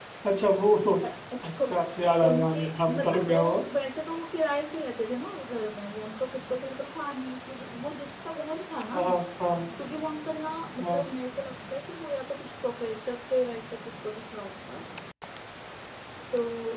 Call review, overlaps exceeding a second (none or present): present